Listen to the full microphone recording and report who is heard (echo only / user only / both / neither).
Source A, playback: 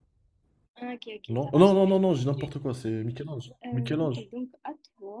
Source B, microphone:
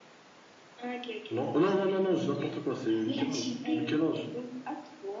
both